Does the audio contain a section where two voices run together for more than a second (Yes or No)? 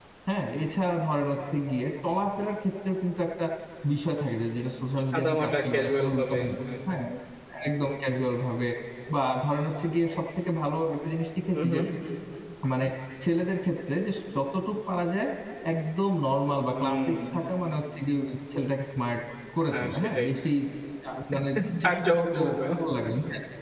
Yes